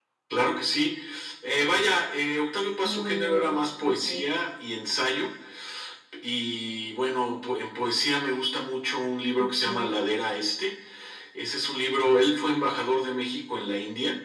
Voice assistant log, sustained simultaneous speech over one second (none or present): present